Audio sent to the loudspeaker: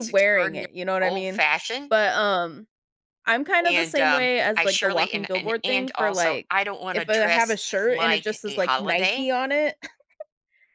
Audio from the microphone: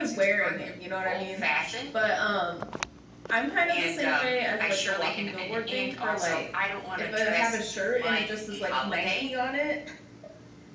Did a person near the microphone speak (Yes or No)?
No